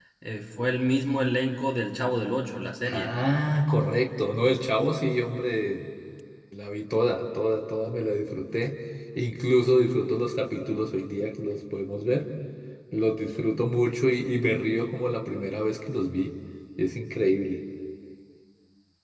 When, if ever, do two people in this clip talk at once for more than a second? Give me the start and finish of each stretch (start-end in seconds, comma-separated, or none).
none